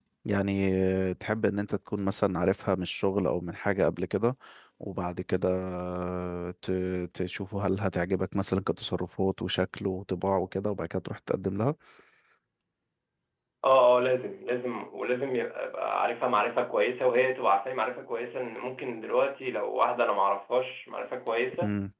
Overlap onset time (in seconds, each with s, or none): none